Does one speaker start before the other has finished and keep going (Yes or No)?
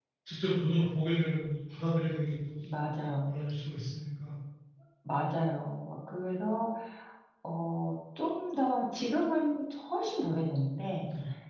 No